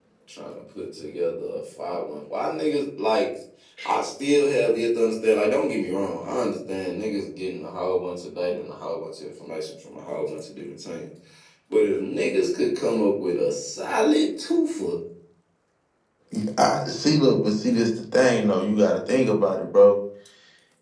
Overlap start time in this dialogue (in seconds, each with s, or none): none